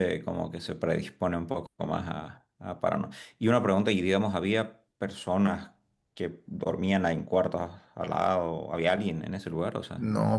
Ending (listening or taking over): taking over